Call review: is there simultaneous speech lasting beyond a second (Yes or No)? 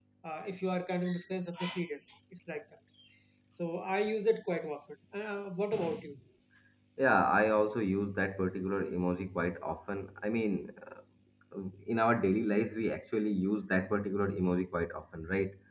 No